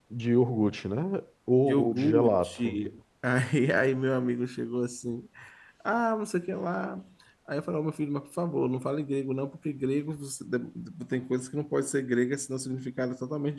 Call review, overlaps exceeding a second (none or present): present